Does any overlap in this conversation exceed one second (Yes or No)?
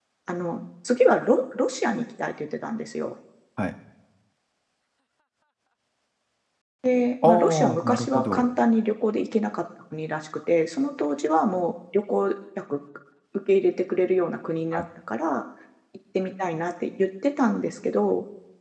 Yes